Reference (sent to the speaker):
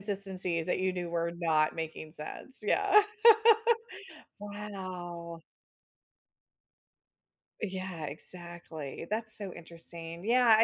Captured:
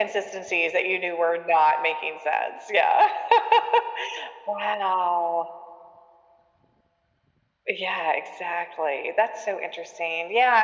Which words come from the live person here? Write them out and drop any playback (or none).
none